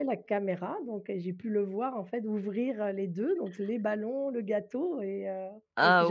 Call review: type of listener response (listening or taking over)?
taking over